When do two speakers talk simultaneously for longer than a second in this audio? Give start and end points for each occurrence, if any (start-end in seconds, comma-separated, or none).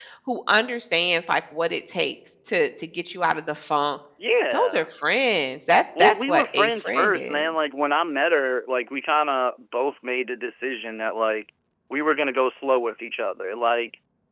6.0-7.5